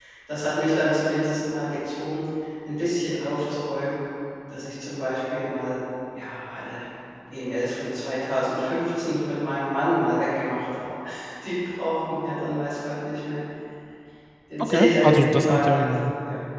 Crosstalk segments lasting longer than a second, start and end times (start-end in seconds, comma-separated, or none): 14.6-16.0